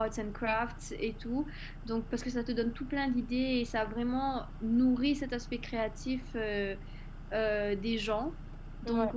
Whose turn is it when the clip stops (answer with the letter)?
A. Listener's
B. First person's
B